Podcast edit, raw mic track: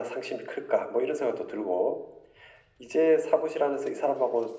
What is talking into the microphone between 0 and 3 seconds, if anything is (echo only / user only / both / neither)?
echo only